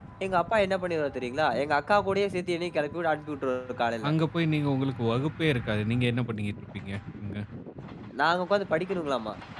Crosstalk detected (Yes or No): No